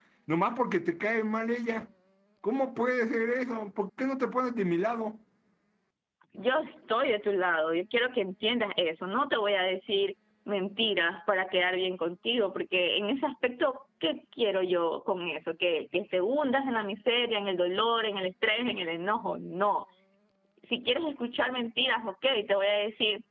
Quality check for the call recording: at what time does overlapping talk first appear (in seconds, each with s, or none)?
none